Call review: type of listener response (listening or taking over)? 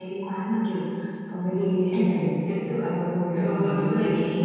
taking over